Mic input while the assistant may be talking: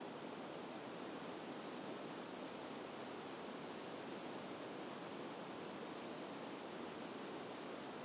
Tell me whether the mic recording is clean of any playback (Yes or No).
Yes